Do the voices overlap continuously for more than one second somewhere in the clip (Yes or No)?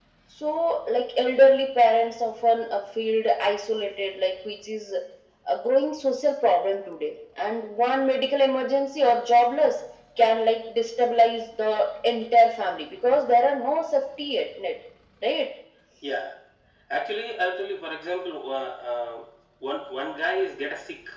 No